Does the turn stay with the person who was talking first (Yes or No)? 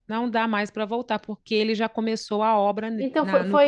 No